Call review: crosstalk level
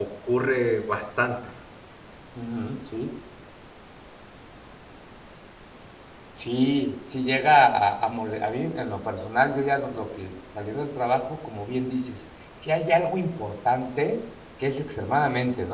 none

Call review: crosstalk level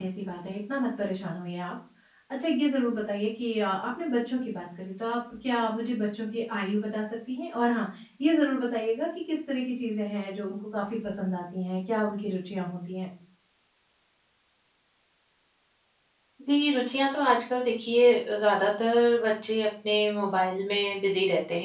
none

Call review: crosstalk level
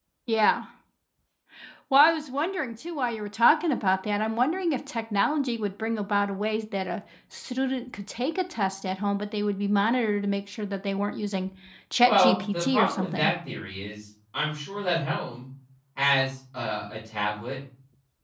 present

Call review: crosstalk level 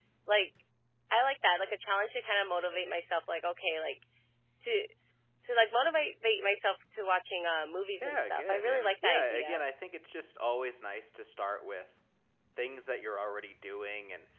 present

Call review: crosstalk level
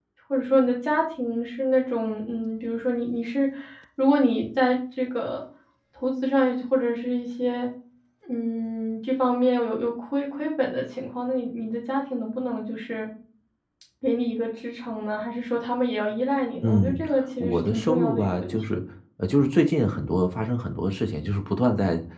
present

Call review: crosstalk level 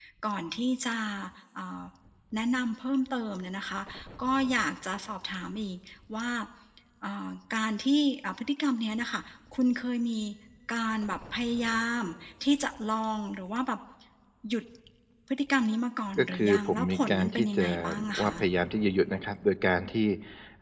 present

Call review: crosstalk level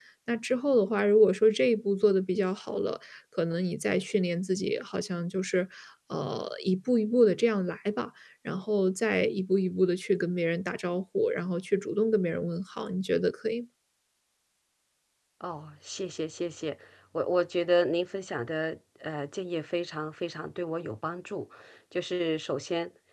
none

